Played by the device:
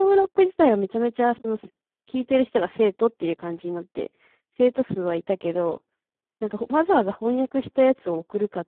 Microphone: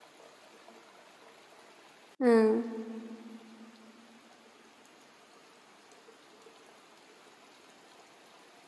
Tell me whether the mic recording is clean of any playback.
Yes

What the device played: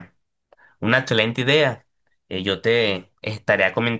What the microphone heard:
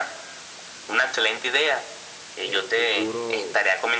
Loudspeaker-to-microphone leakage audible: Yes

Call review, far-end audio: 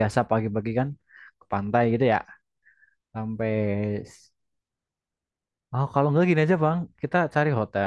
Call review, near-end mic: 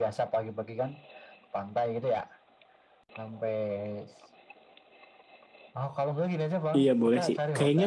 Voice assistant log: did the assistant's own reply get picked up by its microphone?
Yes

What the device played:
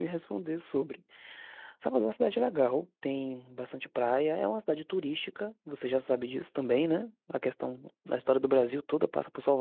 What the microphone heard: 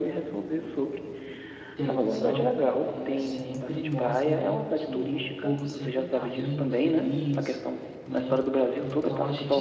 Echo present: Yes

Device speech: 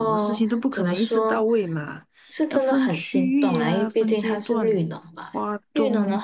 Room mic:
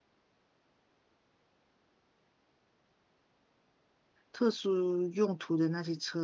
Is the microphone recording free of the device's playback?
Yes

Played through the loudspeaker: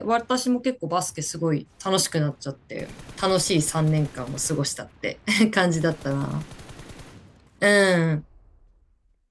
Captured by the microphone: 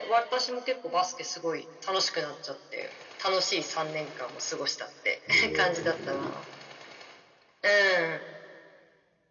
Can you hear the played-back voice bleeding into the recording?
Yes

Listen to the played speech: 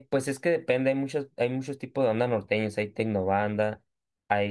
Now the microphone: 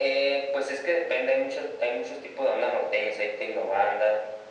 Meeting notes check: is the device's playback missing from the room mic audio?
No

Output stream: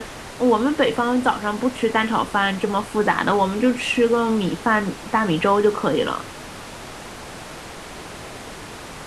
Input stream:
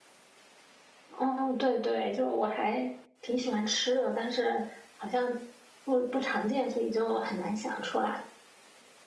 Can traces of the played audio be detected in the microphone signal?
No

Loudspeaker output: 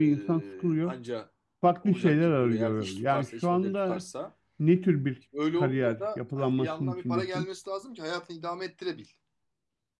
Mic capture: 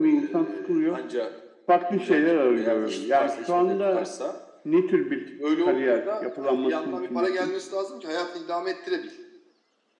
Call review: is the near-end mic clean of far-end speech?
No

